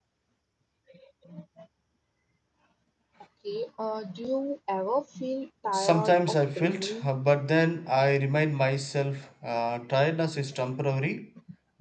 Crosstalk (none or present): present